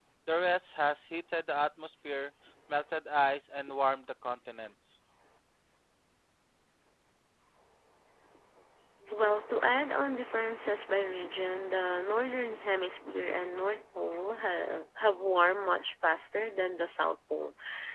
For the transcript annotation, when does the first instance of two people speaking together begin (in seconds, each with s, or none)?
none